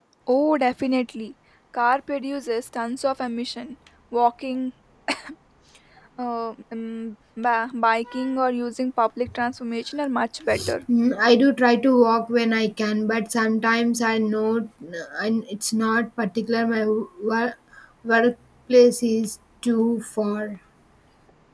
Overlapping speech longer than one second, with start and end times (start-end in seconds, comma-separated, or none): none